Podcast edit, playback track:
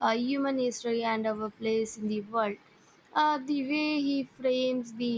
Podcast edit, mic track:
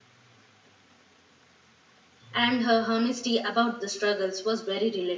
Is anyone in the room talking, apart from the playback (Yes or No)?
Yes